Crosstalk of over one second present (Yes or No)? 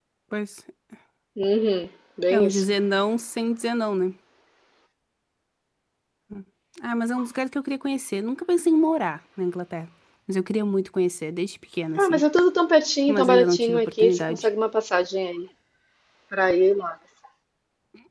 Yes